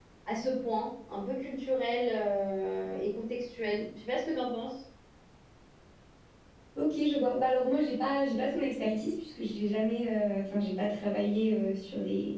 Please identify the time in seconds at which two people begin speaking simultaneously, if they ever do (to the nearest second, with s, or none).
none